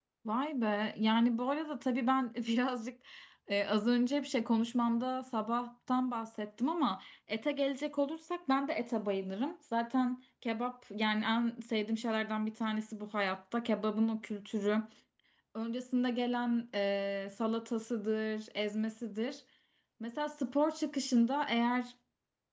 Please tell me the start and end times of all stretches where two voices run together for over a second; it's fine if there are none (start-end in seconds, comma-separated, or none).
none